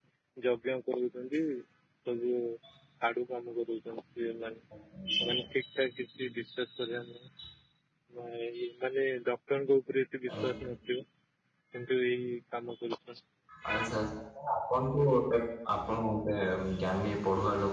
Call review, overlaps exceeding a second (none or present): none